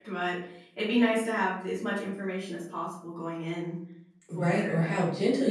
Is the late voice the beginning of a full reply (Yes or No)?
Yes